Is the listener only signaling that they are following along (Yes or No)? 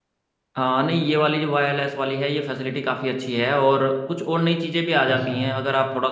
Yes